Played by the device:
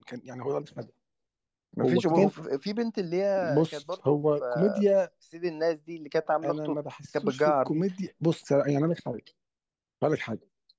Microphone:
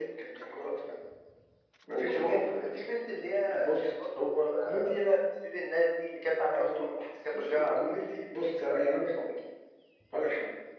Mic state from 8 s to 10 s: echo only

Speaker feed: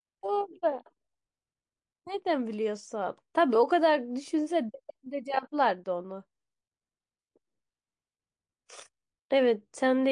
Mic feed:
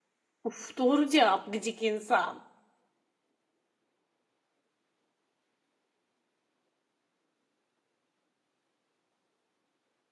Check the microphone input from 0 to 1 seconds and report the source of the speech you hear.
user only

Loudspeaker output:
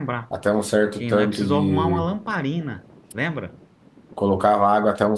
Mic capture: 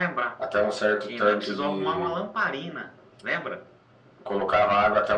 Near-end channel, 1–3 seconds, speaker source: echo only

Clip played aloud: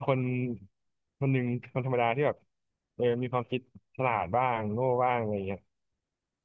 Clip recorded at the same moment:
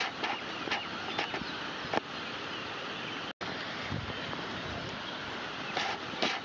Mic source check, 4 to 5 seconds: neither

